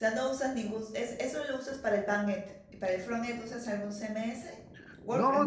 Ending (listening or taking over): taking over